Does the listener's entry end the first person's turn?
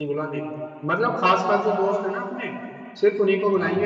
No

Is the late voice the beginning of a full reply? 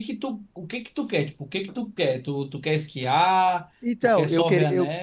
Yes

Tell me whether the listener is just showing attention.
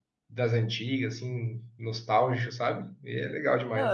No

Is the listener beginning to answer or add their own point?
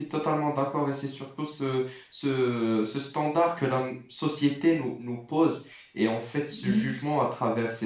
No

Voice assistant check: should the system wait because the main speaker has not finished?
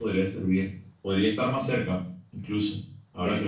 No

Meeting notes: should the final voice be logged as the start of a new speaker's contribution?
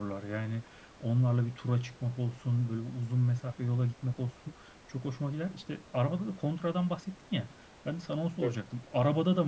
No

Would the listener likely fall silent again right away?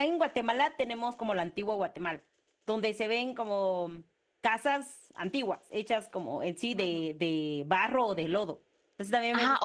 No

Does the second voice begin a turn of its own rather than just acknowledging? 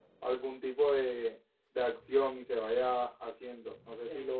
Yes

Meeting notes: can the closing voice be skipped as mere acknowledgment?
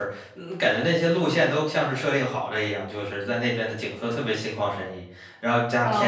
No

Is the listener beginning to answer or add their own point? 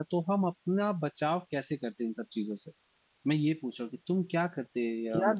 Yes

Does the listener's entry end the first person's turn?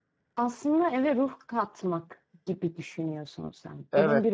Yes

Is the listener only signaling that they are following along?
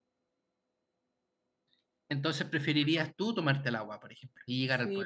No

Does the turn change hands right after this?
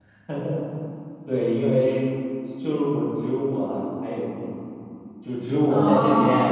No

